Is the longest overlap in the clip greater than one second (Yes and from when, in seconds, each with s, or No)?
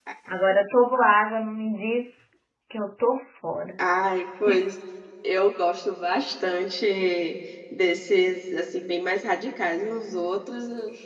No